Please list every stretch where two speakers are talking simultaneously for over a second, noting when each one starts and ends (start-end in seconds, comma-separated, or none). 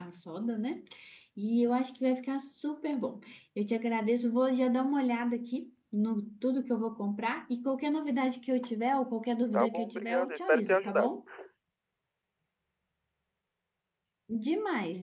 9.5-11.1